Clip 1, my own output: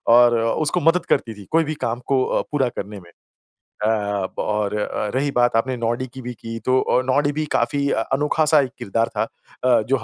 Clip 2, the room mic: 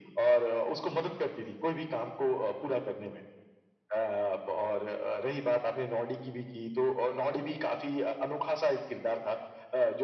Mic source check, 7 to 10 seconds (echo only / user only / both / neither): echo only